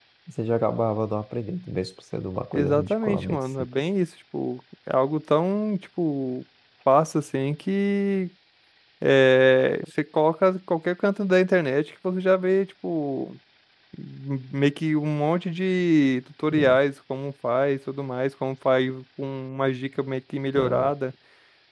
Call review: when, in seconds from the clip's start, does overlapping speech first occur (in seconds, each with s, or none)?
2.5 s